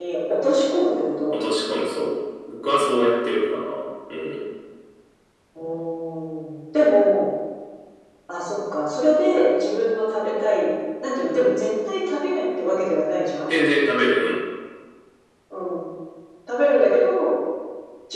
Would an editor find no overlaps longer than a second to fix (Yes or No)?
Yes